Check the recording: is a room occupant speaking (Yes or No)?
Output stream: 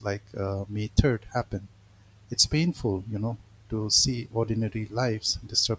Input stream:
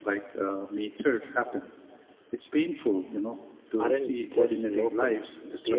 Yes